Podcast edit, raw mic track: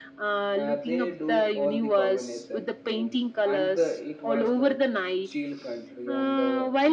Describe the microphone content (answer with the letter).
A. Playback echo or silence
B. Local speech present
B